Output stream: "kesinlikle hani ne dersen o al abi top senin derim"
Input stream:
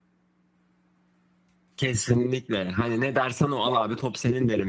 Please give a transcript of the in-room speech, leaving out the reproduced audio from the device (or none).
none